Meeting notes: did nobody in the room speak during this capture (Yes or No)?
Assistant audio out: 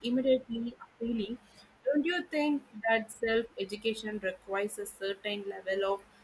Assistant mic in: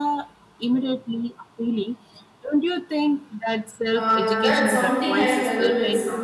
No